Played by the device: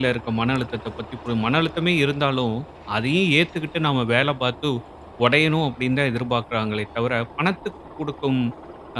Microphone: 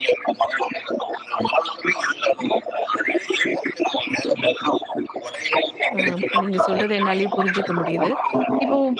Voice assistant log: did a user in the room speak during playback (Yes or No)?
Yes